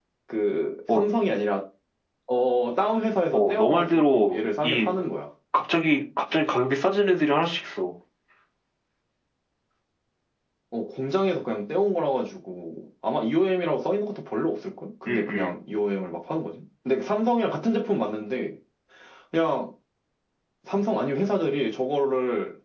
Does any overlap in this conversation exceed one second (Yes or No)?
Yes